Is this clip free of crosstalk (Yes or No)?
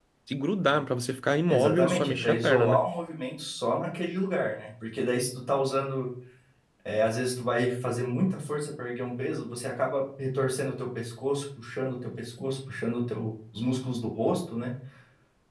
No